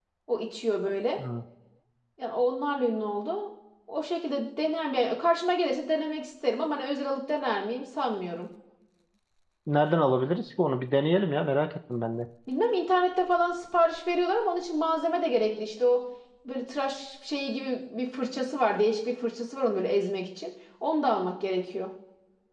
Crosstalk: none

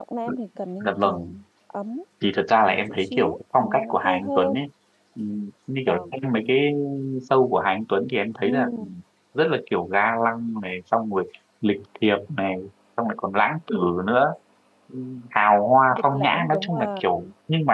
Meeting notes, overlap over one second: present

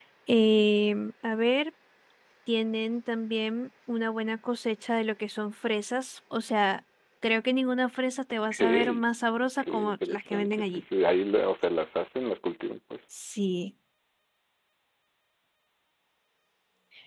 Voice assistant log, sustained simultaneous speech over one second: present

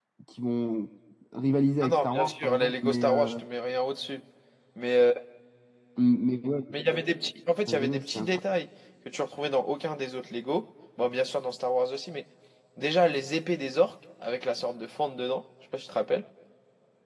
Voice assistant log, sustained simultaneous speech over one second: present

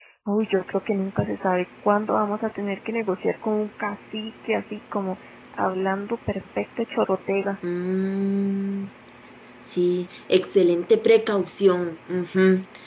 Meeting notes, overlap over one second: none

